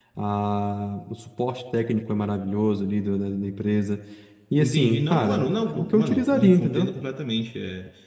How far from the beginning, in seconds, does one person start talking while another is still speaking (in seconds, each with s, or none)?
4.6 s